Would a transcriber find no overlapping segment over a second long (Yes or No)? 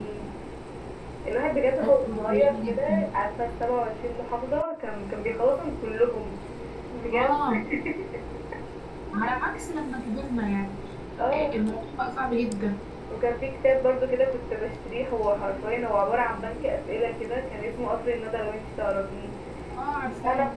No